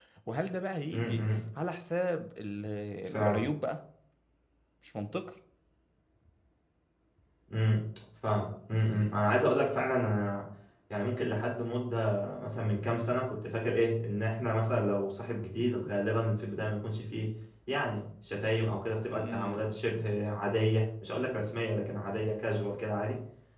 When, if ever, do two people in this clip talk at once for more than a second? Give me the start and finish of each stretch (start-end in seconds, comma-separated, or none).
none